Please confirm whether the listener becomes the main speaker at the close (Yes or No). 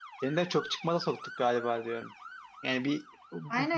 Yes